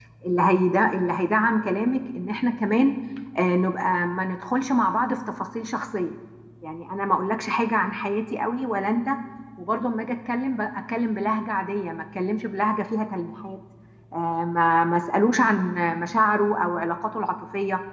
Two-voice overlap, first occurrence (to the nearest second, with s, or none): none